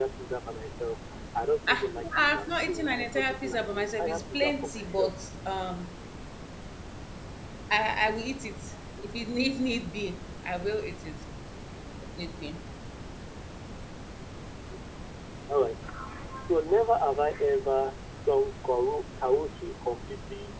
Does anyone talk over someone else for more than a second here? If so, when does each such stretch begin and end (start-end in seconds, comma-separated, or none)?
1.7-5.1